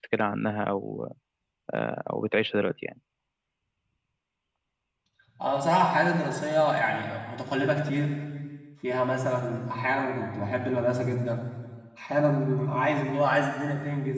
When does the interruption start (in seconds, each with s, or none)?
none